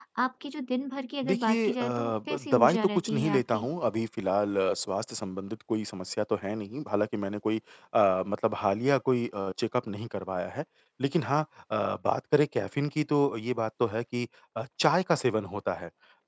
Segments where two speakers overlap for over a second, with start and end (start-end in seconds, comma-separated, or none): 1.2-3.7